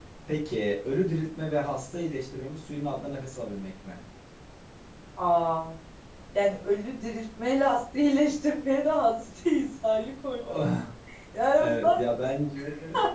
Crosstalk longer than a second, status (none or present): none